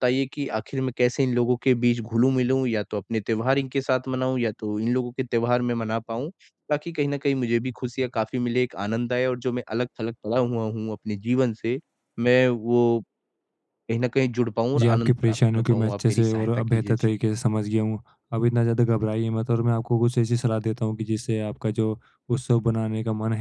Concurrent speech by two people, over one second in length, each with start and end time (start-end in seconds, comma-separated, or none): 14.8-17.1